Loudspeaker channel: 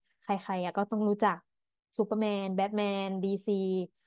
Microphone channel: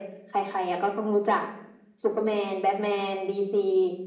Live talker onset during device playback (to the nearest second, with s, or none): none